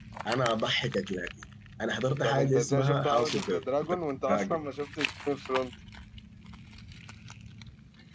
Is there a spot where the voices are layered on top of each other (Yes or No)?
Yes